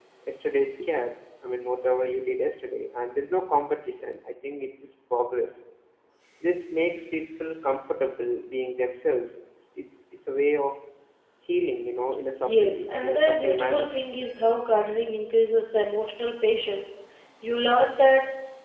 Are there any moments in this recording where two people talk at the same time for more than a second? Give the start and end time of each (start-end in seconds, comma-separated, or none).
12.4-13.9